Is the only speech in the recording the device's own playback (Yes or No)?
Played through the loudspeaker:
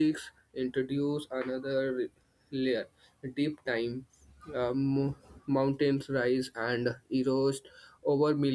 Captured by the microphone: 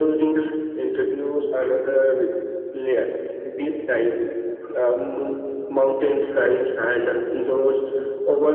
Yes